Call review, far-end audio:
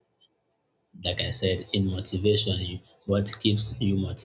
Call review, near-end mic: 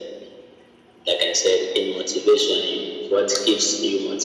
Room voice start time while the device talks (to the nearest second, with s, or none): none